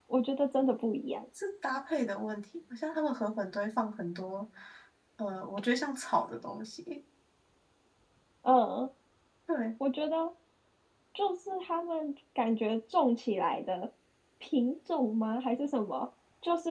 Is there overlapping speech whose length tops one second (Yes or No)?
No